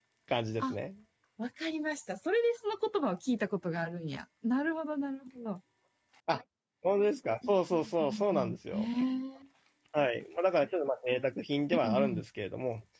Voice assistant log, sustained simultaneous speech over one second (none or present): present